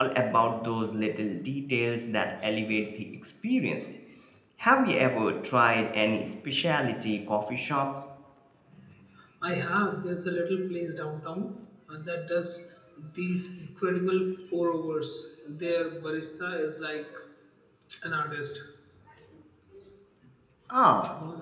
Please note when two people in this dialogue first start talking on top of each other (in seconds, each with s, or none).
none